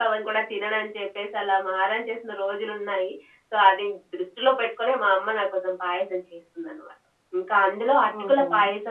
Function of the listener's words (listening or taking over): listening